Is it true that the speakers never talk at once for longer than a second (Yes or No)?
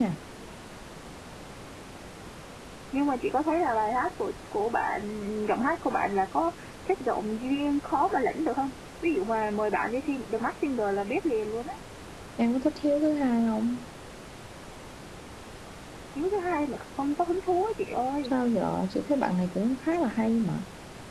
Yes